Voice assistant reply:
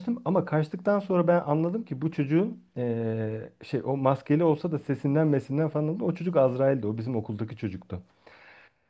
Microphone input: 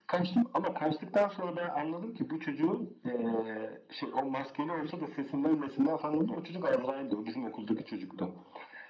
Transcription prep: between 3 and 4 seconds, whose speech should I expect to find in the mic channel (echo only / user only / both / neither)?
echo only